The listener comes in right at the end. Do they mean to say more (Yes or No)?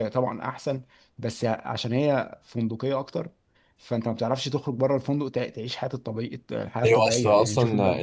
Yes